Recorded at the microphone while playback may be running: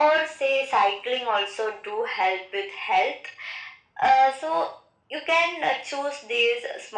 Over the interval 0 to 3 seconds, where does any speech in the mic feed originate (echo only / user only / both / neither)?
echo only